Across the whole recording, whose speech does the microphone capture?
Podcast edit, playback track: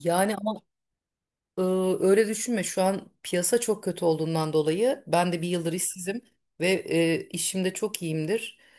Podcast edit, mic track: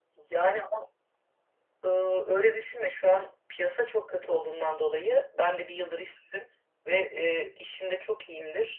echo only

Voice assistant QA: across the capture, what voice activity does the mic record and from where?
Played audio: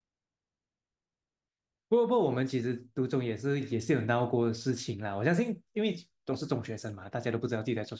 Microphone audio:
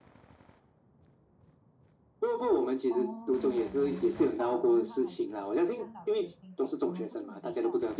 both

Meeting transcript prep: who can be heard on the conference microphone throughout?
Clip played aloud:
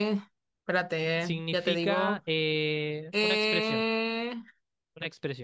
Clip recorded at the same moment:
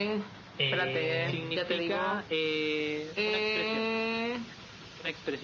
both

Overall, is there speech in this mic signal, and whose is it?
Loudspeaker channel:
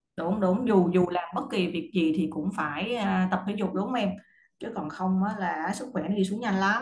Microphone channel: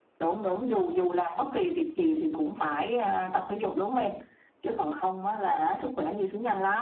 echo only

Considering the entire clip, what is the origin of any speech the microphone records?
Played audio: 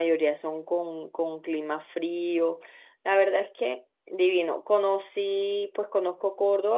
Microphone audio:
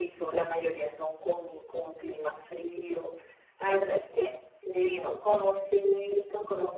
echo only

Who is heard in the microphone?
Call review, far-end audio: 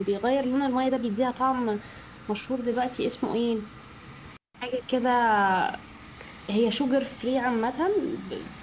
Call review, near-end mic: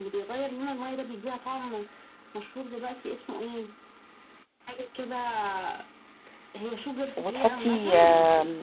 both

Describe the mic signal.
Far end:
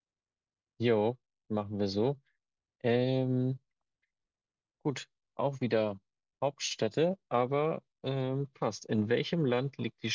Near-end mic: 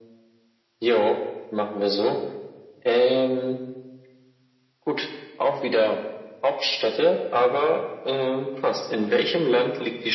echo only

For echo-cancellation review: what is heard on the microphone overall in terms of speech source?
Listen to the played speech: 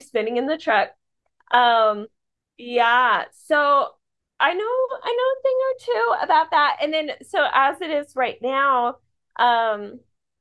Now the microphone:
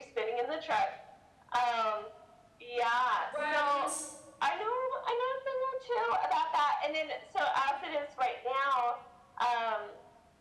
both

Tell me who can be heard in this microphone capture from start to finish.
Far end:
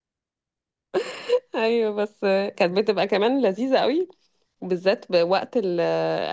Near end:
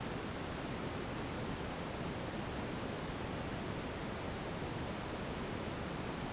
neither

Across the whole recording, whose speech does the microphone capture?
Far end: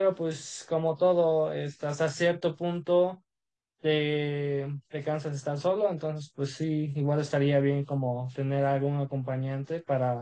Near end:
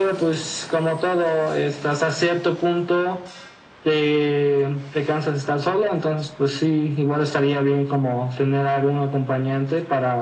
echo only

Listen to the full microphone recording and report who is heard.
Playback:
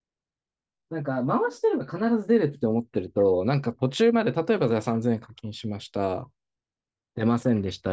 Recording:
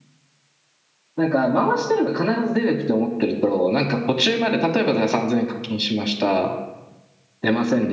echo only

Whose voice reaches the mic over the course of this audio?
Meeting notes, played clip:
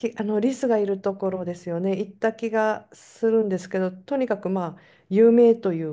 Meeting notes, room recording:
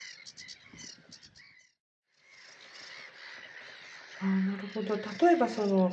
user only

